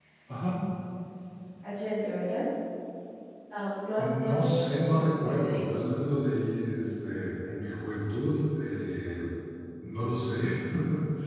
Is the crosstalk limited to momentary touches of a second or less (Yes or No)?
No